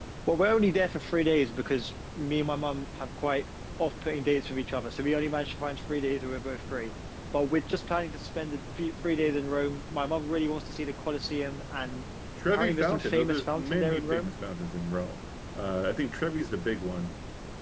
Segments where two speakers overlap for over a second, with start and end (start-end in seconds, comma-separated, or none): 12.4-14.3